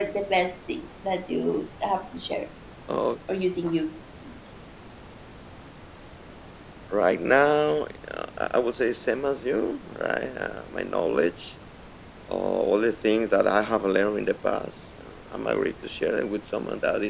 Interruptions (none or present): none